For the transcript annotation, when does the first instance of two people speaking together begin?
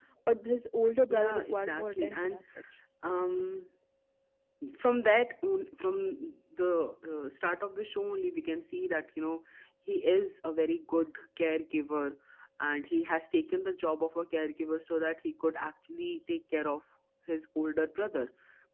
1.1 s

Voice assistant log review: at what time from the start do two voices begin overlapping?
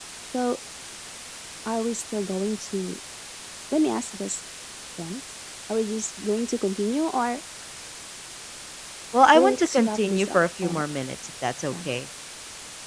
9.3 s

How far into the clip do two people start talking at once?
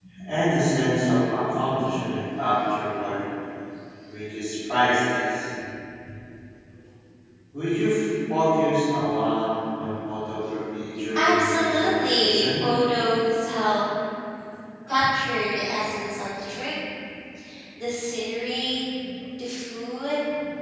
11.1 s

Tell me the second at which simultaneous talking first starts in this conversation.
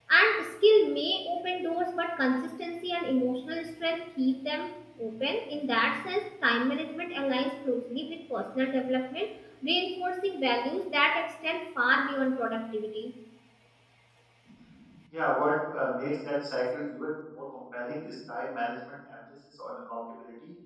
none

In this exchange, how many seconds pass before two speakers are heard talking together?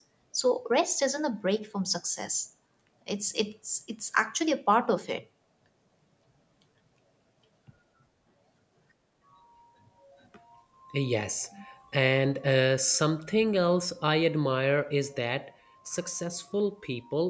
none

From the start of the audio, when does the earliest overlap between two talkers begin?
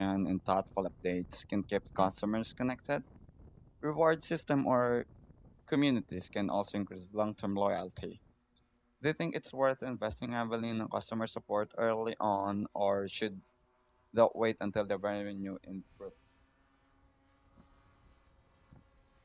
none

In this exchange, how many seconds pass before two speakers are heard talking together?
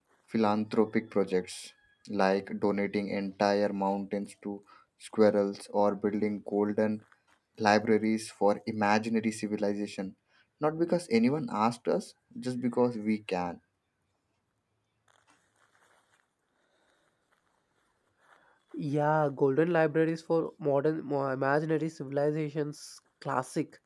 none

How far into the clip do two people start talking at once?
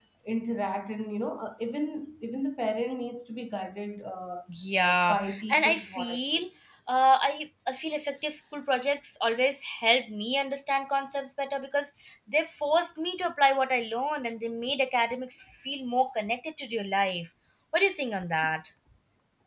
4.8 s

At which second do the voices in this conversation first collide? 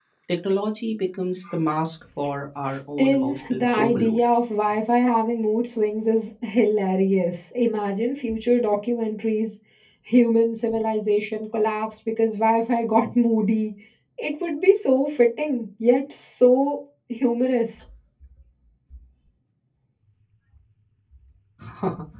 2.6 s

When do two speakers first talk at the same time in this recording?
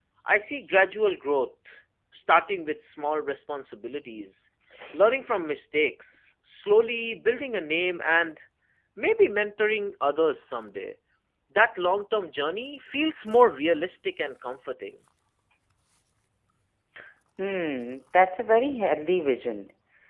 none

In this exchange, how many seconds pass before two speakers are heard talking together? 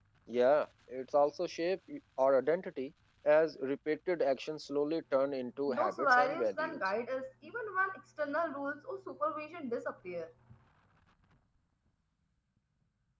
5.7 s

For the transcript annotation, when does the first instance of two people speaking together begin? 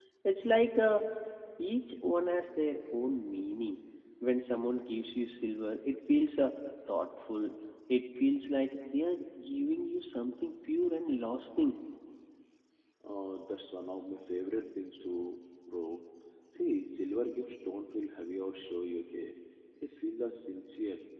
none

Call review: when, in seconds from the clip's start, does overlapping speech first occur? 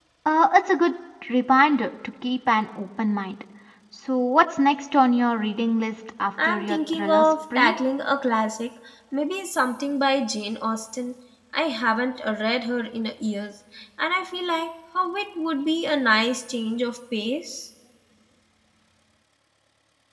6.3 s

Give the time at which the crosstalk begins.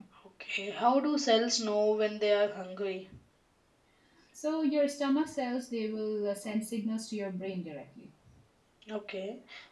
none

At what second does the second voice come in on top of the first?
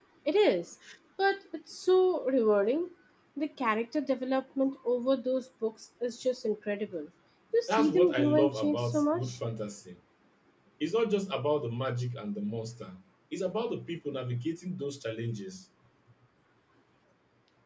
7.7 s

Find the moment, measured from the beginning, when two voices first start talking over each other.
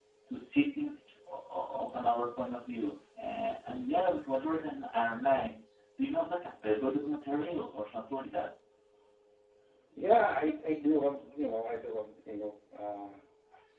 none

